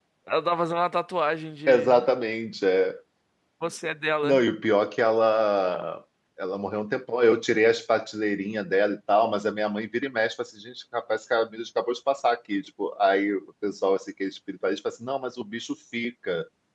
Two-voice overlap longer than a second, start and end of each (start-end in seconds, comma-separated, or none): none